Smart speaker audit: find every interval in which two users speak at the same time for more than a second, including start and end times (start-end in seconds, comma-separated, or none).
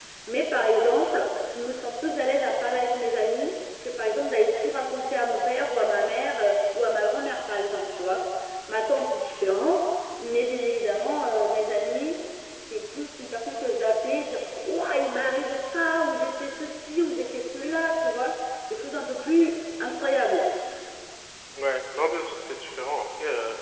none